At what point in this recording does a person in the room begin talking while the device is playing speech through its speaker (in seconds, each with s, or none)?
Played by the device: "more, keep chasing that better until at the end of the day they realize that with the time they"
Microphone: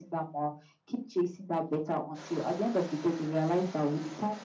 none